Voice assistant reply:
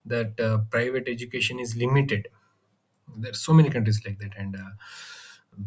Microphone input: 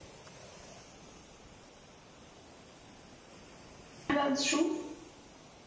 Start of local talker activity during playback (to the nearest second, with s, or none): 4 s